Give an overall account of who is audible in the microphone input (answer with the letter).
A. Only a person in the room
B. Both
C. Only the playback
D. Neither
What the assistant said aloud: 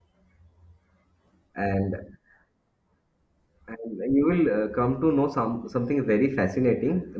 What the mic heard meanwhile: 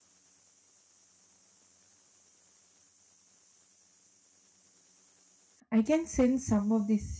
A